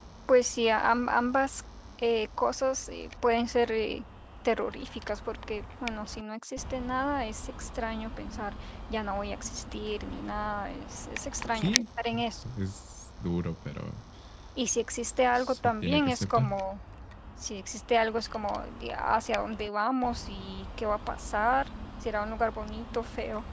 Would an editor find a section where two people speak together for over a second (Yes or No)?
Yes